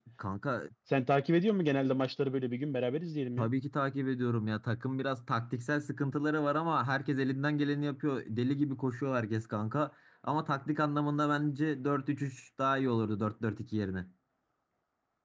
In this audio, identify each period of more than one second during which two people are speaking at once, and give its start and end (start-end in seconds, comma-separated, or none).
none